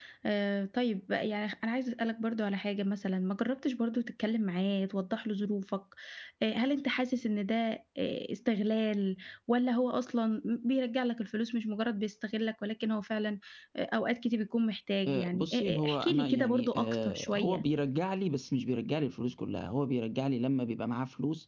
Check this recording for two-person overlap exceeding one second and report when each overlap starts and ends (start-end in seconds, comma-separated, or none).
15.1-17.6